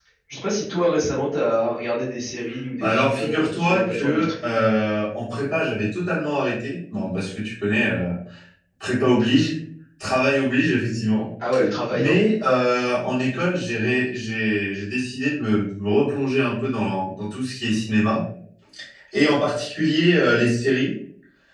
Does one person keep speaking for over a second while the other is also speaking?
Yes, from 2.8 s

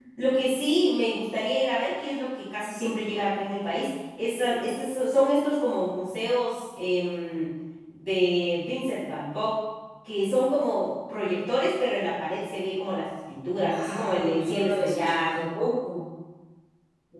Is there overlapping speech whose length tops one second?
Yes, from 13.5 s

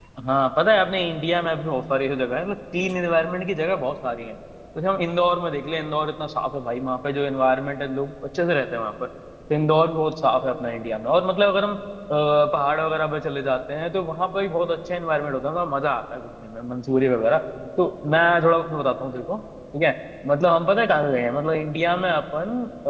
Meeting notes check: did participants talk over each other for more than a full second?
No

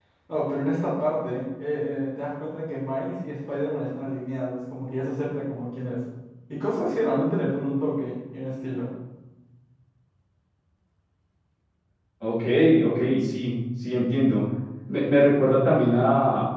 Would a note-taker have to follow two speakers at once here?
No

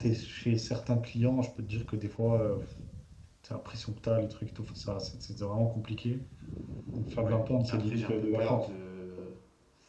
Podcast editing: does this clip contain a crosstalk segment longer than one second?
Yes, from 7.2 s

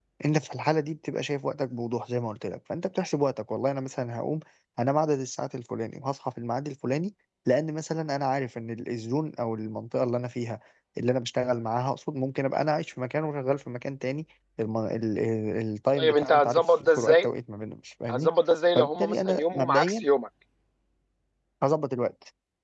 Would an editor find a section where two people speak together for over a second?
Yes, from 16.0 s

